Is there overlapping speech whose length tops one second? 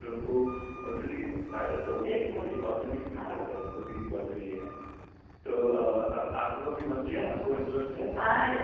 No

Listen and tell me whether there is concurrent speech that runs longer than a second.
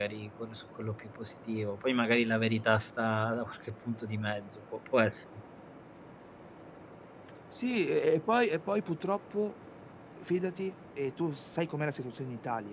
No

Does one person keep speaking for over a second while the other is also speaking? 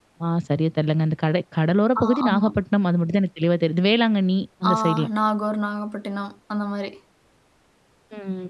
No

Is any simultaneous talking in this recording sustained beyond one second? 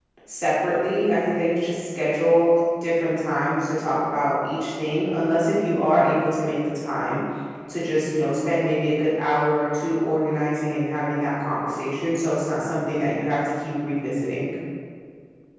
No

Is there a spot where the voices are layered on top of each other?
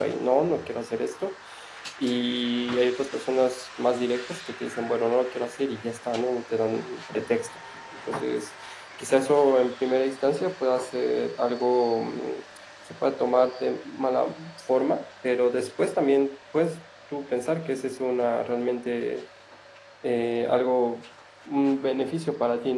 No

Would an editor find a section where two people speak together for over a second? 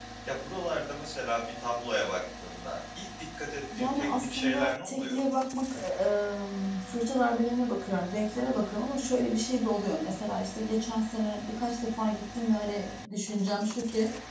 Yes, from 3.7 s

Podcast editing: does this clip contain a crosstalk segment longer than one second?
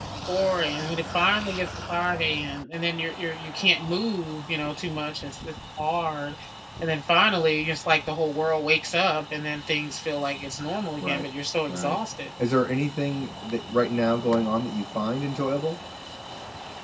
No

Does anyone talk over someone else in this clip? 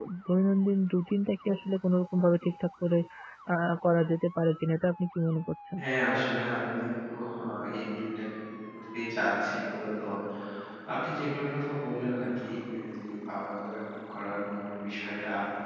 No

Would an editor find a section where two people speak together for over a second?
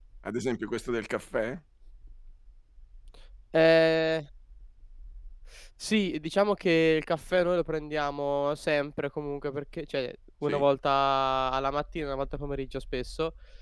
No

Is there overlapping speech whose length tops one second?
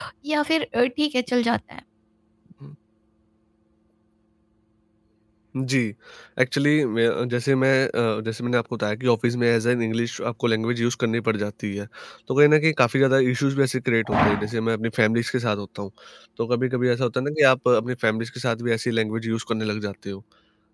No

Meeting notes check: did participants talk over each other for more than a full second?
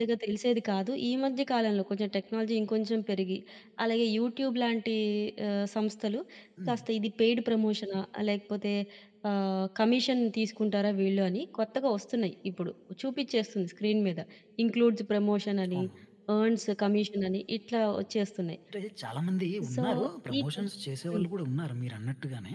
No

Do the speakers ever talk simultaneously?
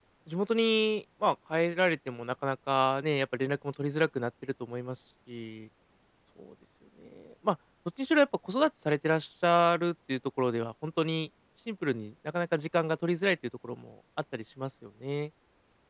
No

